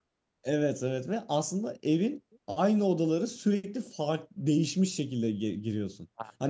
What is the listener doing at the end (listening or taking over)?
listening